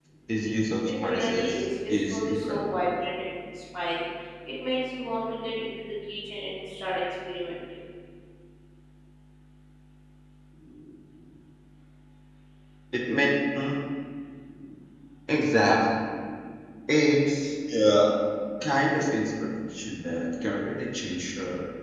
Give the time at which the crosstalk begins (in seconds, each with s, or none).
1.0 s